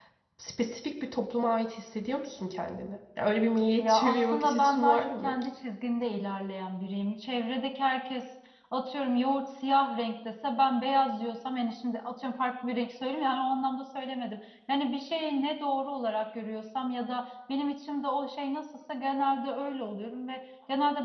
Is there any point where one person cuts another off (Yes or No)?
Yes